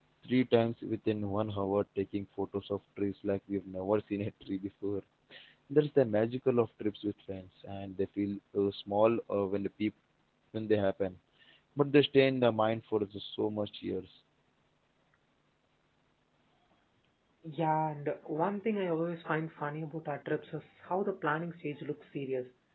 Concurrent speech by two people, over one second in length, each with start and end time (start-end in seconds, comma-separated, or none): none